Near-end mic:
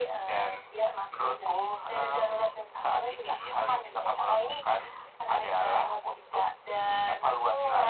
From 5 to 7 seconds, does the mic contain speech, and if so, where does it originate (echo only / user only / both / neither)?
echo only